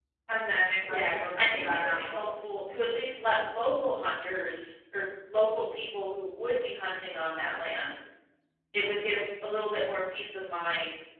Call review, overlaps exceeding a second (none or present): present